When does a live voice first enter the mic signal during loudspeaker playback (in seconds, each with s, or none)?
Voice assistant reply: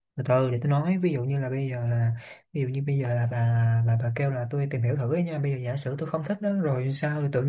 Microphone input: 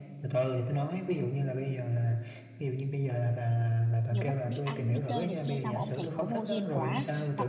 4.1 s